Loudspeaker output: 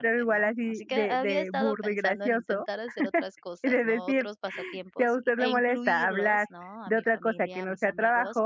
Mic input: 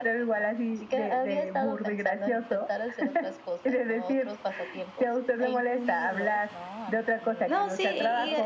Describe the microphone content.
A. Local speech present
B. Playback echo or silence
A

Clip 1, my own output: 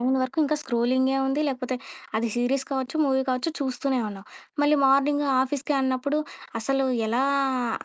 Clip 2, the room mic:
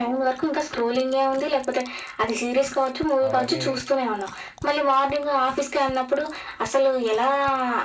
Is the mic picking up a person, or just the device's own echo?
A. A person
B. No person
A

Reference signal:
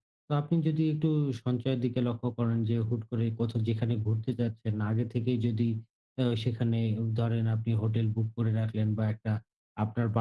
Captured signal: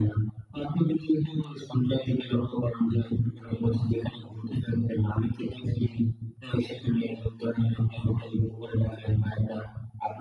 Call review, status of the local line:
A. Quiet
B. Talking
A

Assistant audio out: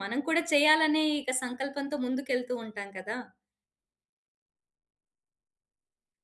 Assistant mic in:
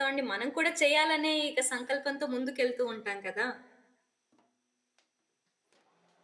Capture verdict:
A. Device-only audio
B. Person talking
A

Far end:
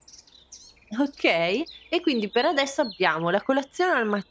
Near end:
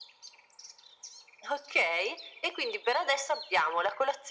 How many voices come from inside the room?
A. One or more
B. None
B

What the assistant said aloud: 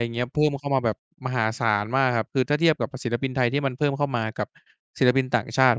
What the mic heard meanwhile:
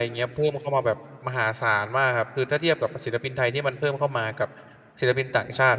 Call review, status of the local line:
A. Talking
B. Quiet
B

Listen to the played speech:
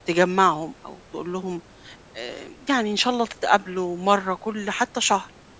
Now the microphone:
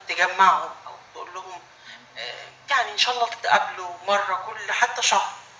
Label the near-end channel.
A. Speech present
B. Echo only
B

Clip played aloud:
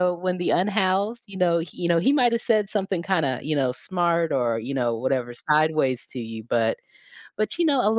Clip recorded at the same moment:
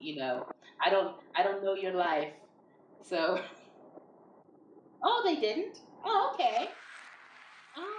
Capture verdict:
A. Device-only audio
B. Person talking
B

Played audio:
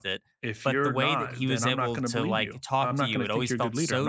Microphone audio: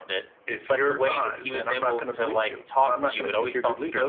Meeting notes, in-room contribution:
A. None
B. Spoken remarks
A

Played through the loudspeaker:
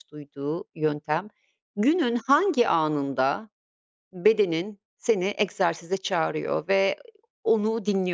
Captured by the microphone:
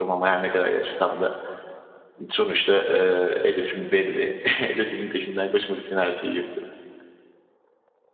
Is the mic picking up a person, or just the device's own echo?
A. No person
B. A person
B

